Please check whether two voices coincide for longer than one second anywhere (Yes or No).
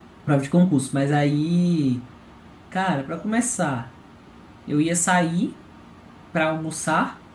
No